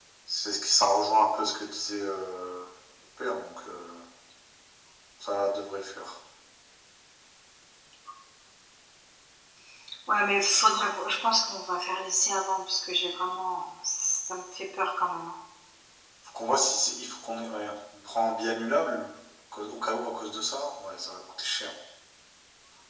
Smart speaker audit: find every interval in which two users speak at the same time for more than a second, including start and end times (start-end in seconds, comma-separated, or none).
none